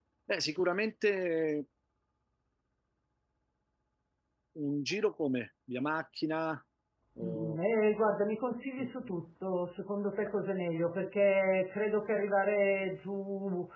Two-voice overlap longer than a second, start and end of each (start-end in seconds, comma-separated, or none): none